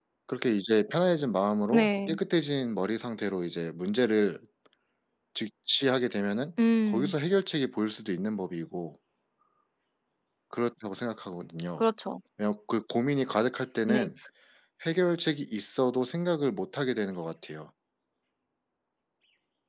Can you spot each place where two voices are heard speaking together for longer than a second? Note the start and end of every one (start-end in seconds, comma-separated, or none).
none